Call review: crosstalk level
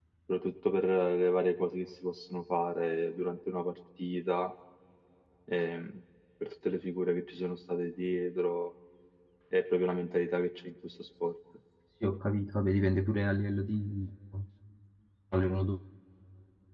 none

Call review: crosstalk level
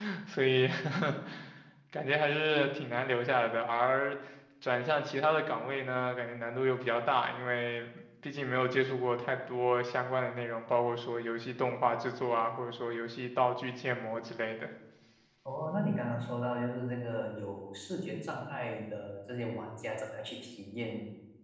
none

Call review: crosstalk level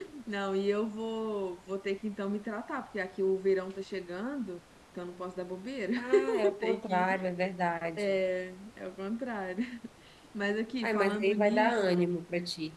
present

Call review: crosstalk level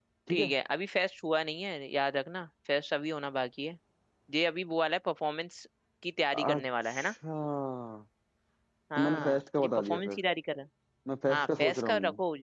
present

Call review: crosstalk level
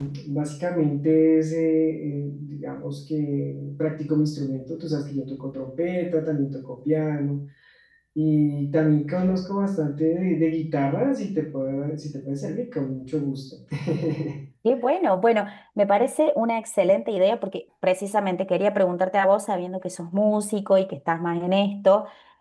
none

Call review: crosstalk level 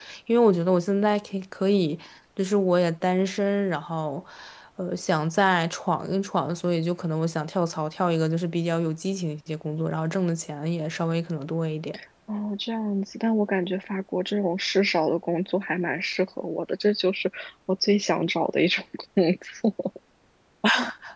none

